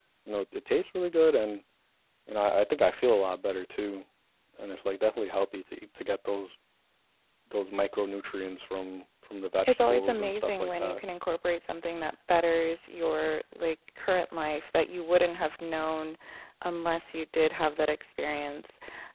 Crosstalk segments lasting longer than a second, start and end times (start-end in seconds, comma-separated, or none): 9.7-11.0